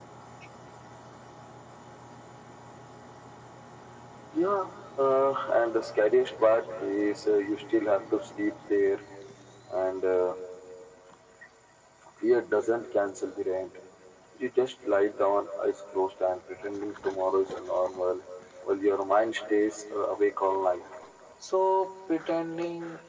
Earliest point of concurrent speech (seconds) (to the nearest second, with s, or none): none